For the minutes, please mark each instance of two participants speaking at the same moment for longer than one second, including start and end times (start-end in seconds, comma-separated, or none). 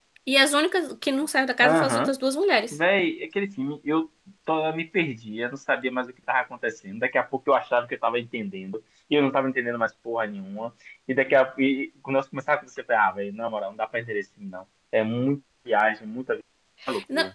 none